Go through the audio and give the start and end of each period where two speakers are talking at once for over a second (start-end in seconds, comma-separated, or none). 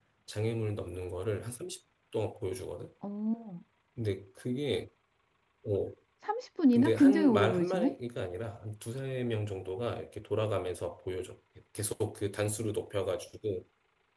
6.7-8.0